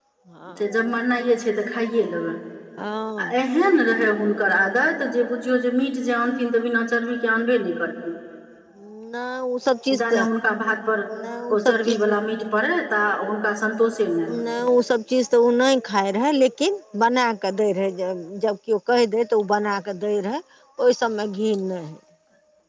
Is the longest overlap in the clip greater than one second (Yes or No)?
No